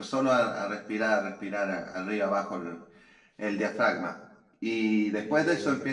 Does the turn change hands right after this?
No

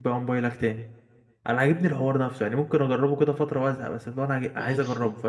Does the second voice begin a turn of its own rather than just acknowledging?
Yes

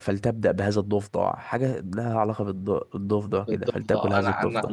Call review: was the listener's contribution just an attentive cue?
No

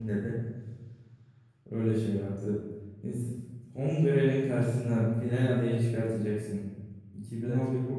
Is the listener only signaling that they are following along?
Yes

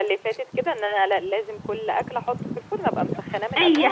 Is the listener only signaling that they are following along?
No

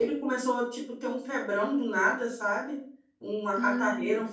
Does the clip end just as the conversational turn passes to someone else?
No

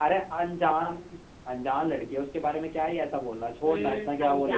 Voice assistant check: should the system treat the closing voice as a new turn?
Yes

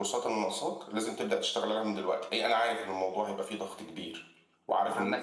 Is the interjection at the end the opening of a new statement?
Yes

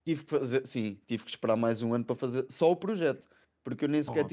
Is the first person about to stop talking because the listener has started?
No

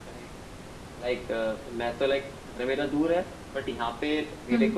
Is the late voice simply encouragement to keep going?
Yes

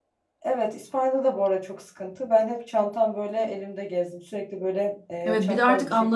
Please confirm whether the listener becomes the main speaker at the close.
Yes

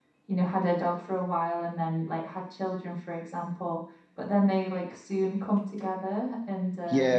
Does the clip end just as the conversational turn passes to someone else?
Yes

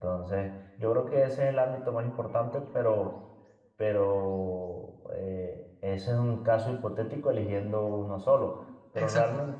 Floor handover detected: No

